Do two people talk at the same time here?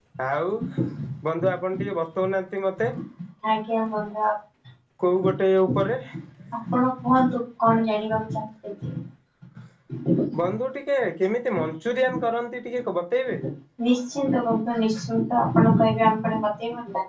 No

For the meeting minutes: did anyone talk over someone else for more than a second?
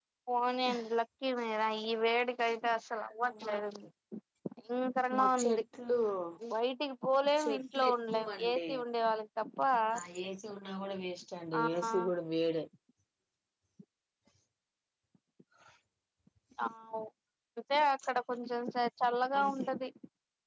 Yes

